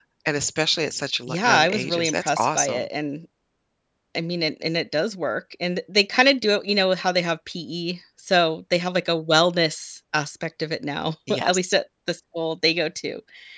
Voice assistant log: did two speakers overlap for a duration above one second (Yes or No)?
Yes